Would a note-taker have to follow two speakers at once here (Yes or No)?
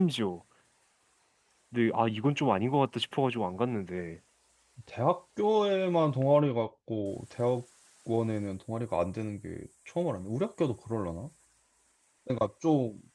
No